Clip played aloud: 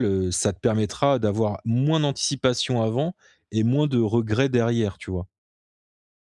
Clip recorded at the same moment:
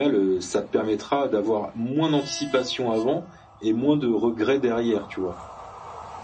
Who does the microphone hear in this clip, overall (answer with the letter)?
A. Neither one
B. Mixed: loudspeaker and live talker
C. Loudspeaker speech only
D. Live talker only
C